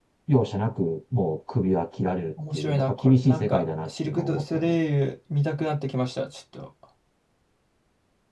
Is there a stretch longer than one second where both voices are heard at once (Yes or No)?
Yes